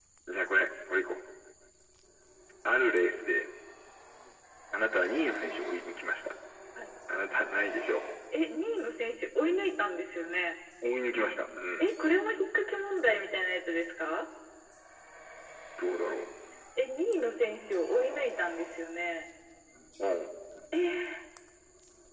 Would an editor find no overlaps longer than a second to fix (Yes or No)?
Yes